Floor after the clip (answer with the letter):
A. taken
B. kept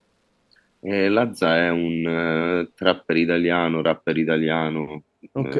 A